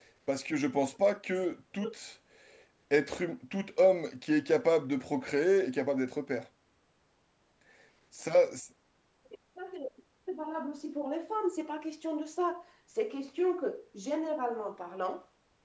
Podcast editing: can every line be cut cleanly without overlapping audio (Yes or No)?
Yes